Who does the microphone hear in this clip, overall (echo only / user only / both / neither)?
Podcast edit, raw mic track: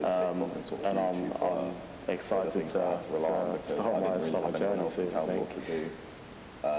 echo only